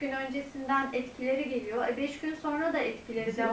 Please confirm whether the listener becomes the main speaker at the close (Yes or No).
No